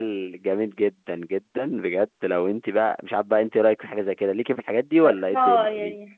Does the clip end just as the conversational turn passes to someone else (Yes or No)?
Yes